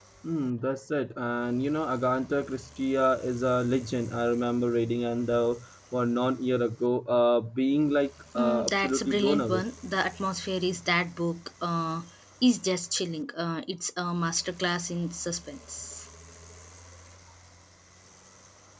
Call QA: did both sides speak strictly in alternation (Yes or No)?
No